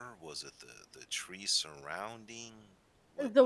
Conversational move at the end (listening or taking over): taking over